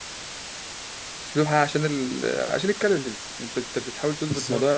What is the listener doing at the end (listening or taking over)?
listening